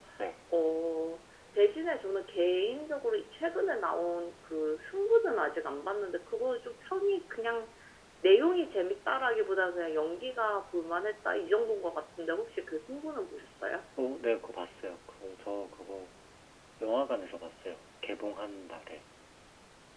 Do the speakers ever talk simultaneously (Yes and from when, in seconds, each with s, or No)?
No